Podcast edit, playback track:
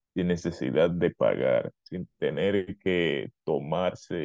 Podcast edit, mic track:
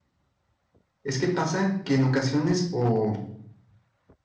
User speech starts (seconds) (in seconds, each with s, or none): 1.0 s